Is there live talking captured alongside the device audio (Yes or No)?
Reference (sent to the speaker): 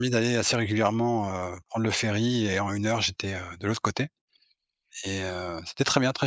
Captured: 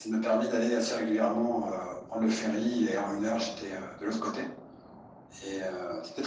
No